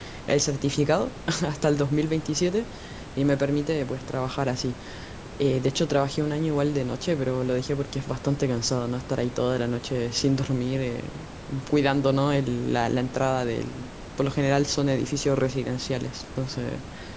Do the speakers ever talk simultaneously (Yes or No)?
No